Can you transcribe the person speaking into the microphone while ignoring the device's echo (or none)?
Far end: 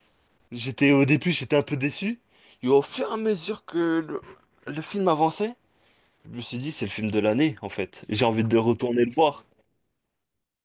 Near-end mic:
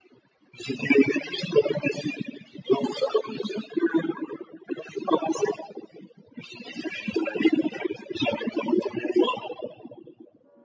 none